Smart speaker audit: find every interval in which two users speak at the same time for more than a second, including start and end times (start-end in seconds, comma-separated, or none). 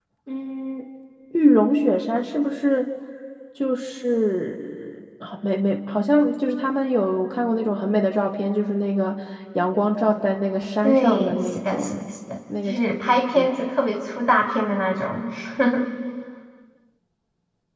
10.8-12.1